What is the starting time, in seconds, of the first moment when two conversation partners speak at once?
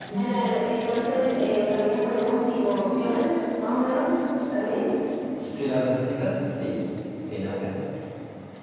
none

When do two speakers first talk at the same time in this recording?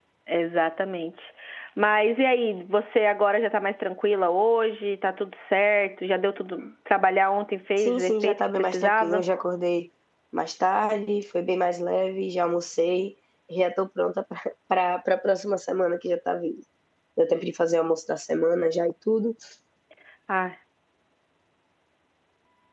7.8 s

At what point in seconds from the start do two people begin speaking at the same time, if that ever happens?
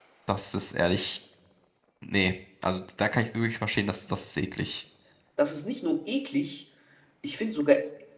none

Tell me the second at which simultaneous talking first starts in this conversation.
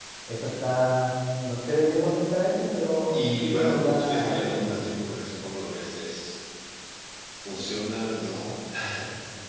3.1 s

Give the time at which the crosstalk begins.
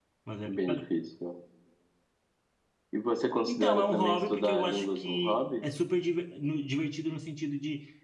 3.5 s

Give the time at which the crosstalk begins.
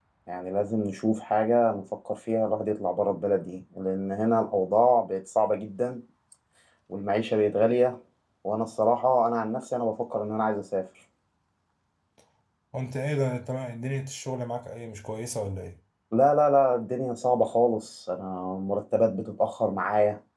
none

